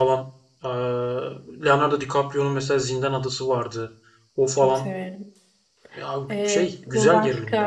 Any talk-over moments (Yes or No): Yes